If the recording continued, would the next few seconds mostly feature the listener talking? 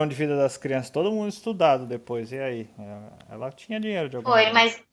Yes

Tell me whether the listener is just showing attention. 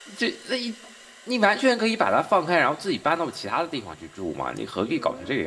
No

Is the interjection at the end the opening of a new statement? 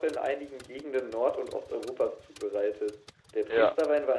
No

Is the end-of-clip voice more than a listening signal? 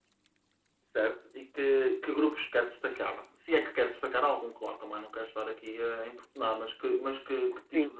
No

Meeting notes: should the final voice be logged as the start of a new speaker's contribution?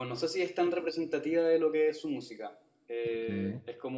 No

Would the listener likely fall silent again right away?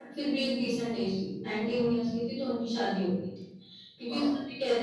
Yes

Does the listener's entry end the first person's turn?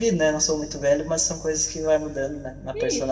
Yes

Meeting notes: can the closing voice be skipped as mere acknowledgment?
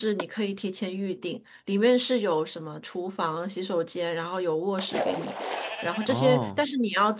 Yes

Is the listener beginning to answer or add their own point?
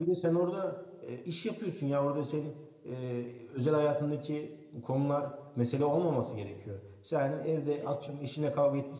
No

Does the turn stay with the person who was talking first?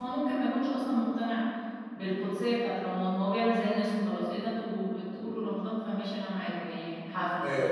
No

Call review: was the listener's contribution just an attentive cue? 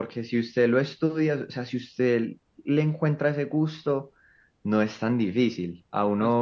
Yes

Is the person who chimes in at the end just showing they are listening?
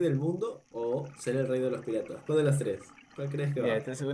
No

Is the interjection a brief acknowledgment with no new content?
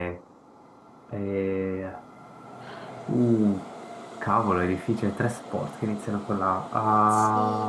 No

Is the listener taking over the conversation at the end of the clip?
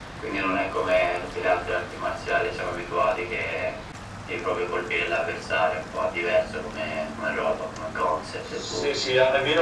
Yes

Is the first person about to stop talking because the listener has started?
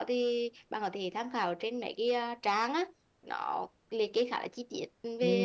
Yes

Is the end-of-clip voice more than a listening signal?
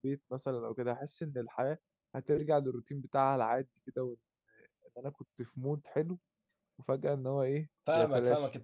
Yes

